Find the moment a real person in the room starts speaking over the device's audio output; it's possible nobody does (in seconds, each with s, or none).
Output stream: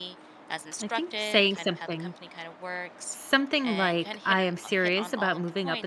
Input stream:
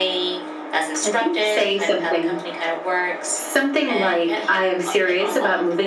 none